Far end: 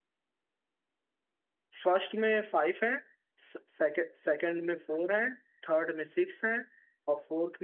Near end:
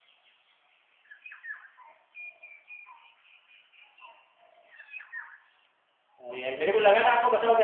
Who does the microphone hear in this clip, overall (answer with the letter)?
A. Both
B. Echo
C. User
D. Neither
C